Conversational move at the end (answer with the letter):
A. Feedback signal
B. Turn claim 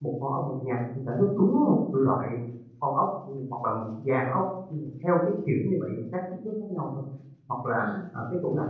A